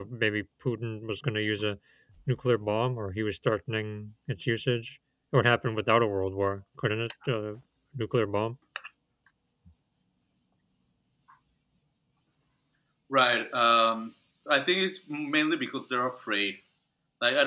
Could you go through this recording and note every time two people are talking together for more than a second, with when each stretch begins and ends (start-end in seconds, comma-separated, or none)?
none